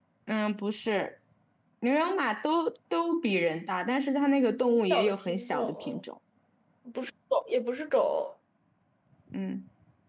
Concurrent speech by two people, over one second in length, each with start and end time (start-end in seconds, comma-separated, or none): 4.7-6.0